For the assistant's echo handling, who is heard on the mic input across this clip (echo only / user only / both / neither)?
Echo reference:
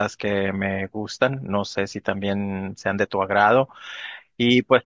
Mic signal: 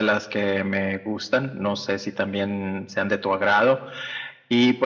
echo only